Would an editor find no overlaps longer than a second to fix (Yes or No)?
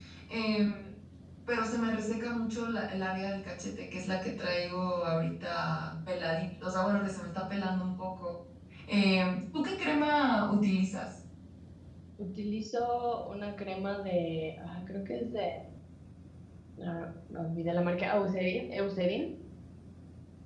Yes